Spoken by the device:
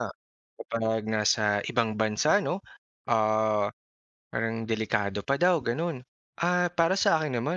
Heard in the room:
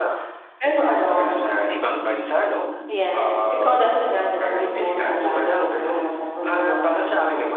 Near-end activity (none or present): present